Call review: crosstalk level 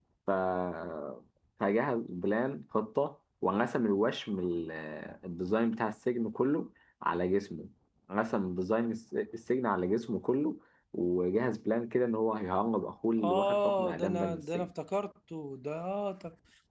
present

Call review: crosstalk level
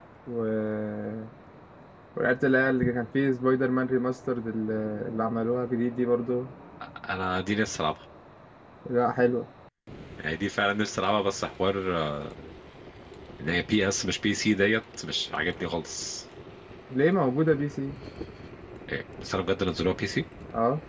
none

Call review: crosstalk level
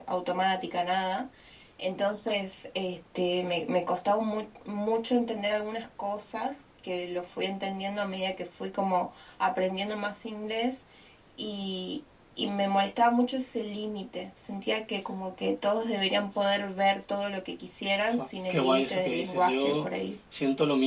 present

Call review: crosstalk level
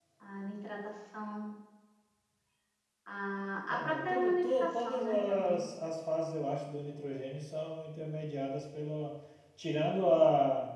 present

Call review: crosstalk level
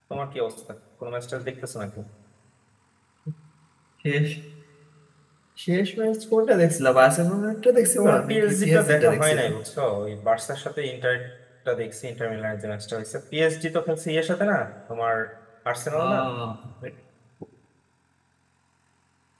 present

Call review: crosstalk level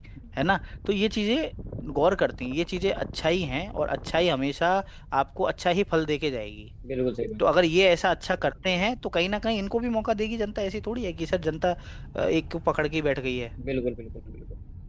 none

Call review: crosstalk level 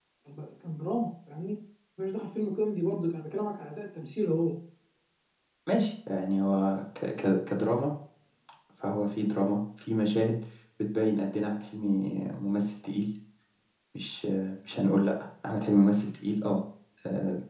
none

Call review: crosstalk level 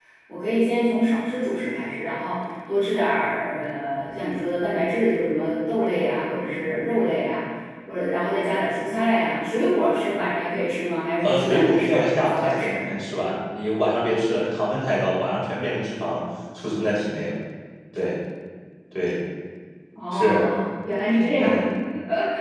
present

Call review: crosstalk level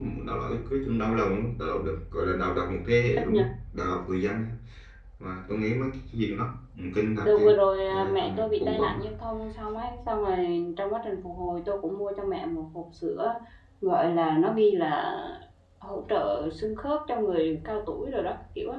present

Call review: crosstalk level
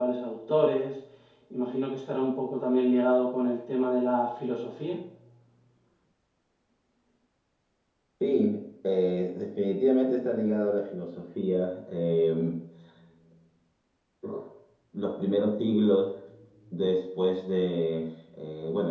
none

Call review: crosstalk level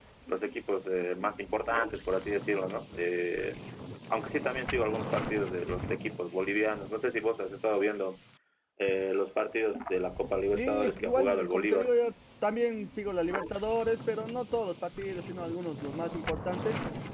present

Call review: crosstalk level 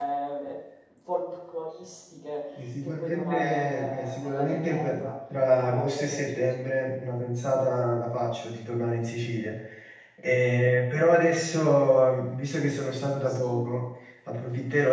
present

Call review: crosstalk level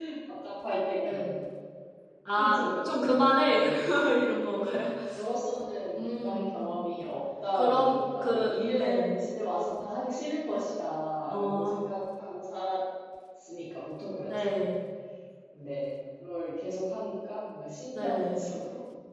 present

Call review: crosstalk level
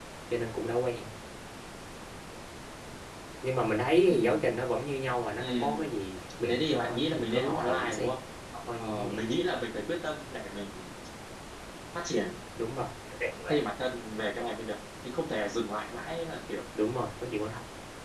present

